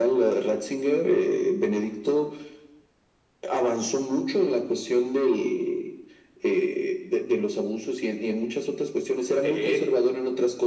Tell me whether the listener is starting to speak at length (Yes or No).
No